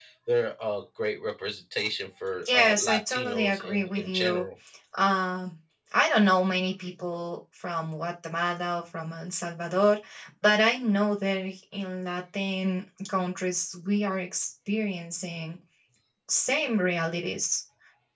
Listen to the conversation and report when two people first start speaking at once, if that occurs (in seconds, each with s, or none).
2.5 s